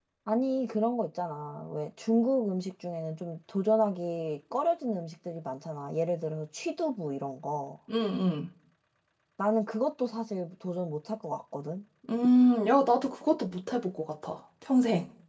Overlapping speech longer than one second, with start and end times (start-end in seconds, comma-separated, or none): none